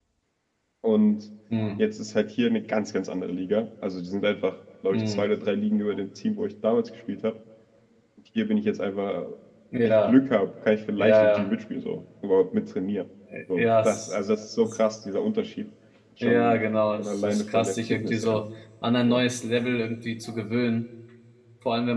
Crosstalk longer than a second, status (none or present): present